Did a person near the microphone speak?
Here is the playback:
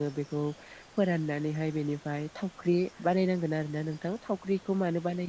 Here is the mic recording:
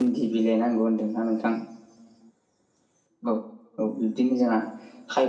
Yes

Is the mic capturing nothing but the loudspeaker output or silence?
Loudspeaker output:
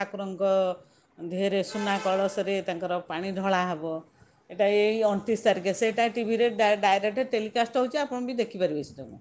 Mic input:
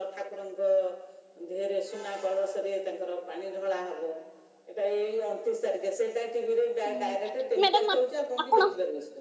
No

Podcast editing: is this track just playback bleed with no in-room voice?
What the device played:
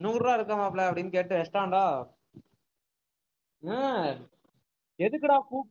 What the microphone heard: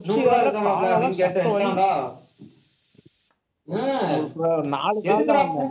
No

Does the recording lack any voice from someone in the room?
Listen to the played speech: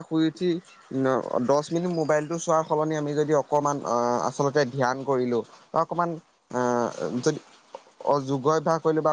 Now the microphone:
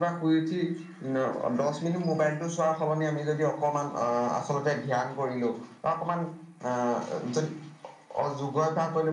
Yes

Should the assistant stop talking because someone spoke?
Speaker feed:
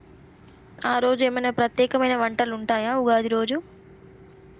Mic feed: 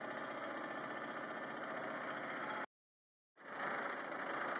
No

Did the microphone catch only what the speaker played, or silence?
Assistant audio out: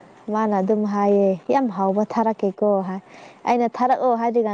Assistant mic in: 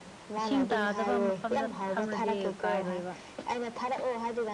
No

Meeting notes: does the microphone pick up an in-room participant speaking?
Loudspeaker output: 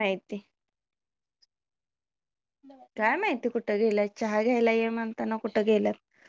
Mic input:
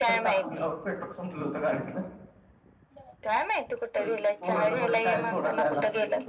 Yes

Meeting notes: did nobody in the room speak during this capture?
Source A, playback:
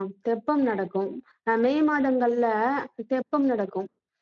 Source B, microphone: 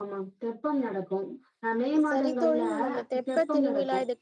No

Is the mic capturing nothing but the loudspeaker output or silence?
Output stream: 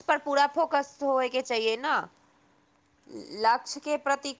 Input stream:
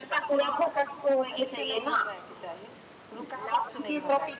No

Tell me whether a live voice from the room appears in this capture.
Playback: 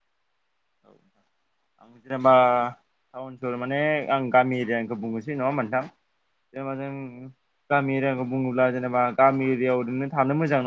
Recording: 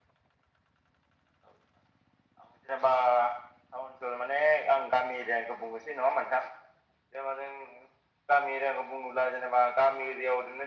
No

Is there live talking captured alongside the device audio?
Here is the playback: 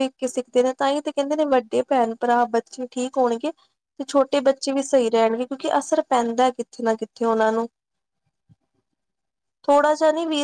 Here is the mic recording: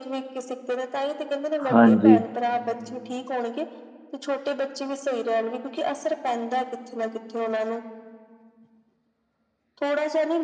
Yes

